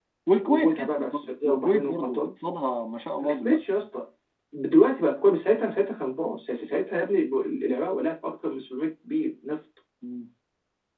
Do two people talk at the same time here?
Yes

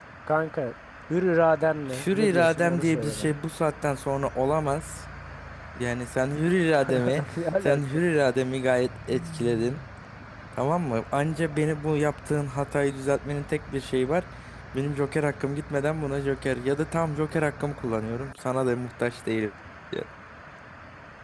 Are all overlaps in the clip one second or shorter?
No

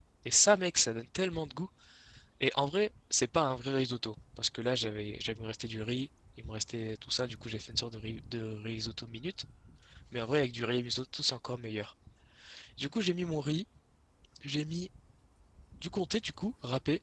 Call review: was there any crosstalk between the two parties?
No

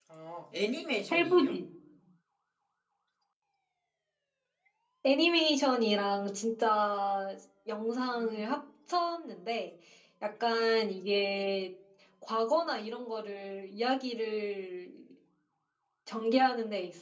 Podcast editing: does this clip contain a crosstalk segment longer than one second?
No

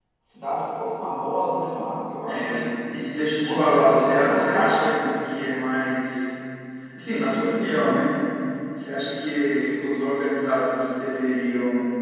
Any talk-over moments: Yes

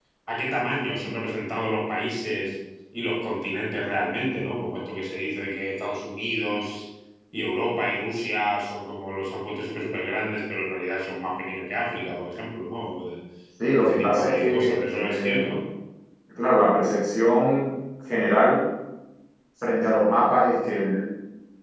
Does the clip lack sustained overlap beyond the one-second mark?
No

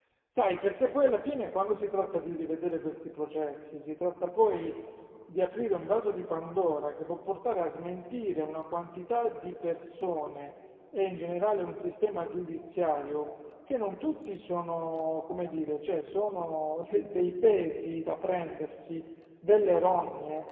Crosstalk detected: No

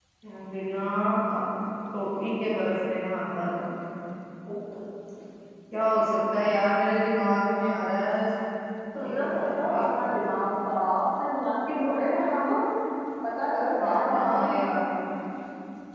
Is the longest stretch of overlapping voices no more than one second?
No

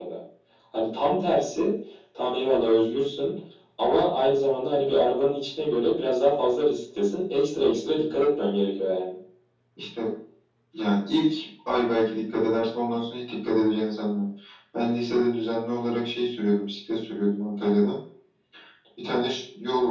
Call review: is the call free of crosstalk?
Yes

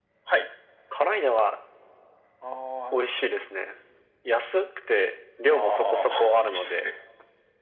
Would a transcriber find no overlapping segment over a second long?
No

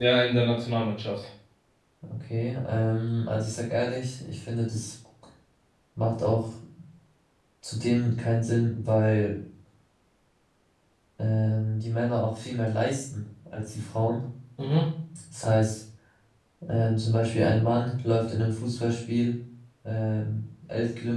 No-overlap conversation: Yes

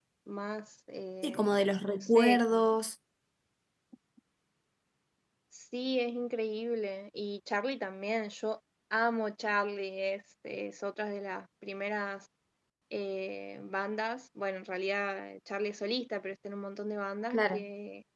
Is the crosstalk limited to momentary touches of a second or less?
No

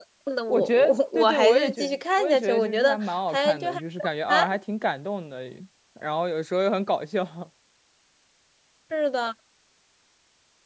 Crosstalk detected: Yes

